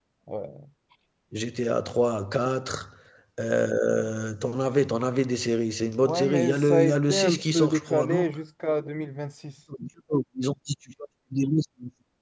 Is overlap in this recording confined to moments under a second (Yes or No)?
No